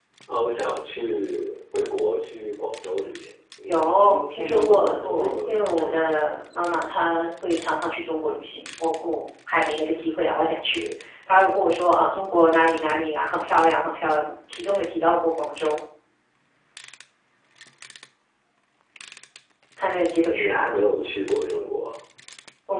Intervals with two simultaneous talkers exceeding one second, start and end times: 3.7-6.1

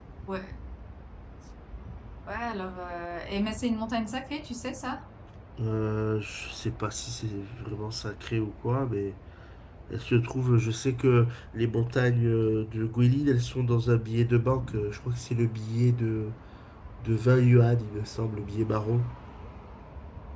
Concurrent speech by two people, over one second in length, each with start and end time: none

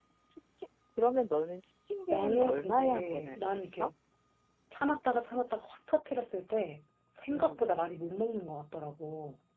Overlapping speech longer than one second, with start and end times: 2.1-3.9

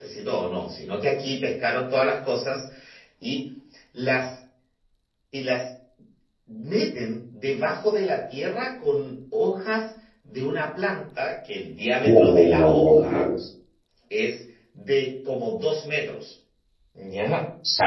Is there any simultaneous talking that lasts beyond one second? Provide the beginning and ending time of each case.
12.0-13.3

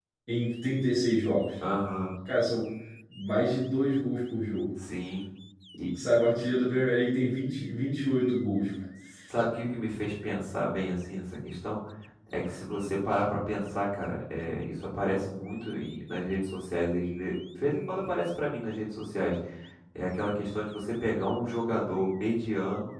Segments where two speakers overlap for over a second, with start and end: none

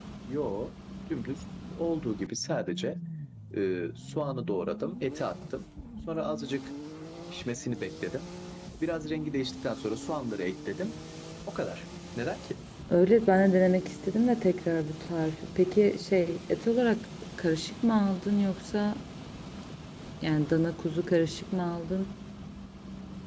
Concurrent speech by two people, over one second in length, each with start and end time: none

